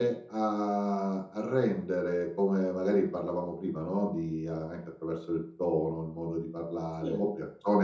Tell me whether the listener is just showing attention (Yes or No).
Yes